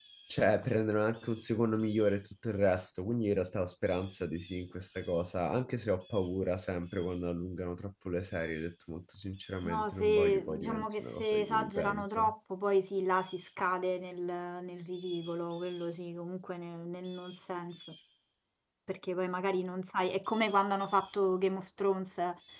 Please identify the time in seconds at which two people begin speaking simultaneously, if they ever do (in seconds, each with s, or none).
9.6 s